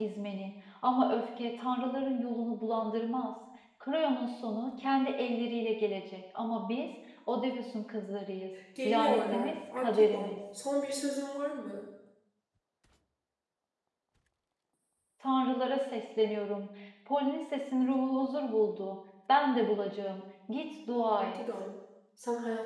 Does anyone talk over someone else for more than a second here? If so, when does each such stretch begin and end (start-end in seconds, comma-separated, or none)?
8.8-10.3